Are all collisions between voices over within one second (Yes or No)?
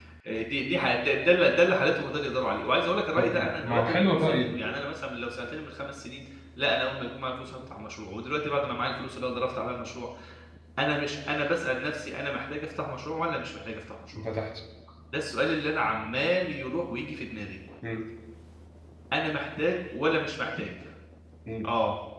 No